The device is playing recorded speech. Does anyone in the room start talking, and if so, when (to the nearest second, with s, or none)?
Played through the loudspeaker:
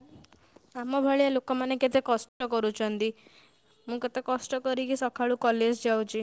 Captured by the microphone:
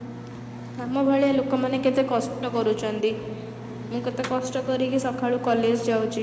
none